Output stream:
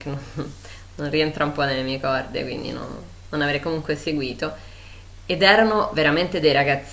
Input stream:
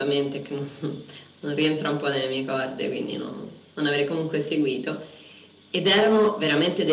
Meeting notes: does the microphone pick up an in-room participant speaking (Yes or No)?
No